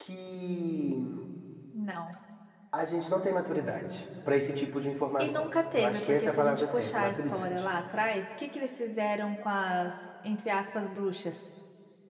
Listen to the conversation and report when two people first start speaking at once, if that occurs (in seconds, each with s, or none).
5.2 s